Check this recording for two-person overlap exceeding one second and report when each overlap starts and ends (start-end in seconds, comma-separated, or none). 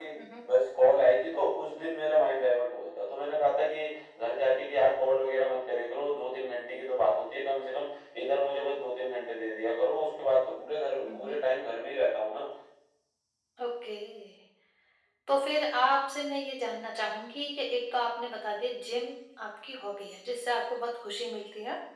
none